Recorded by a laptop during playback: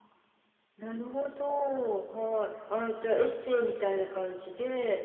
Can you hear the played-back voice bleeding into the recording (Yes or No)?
Yes